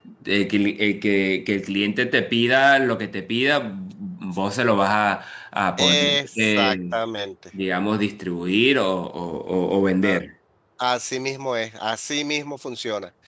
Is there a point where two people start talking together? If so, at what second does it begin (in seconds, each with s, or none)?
5.8 s